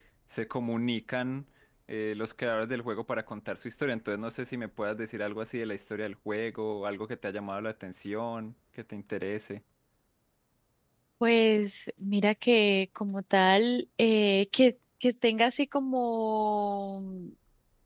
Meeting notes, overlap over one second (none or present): none